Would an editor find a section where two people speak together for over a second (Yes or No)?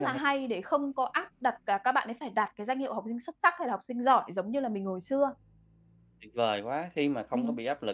No